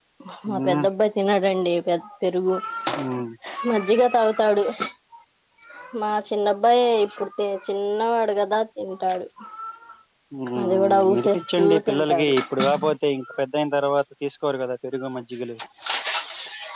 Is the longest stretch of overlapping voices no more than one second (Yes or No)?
No